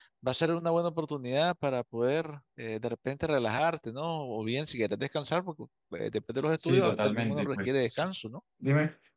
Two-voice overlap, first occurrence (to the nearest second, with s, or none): 7 s